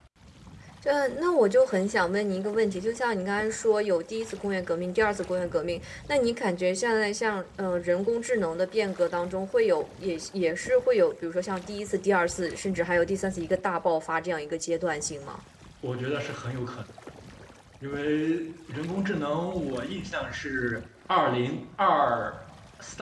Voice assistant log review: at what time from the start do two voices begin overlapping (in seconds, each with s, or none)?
none